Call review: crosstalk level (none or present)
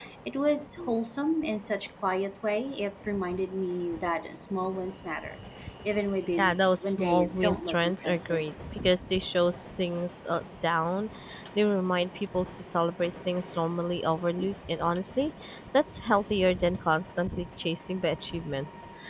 present